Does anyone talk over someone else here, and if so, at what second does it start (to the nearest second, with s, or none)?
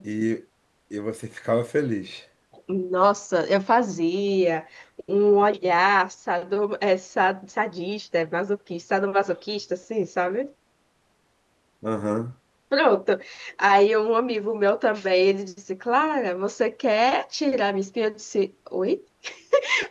none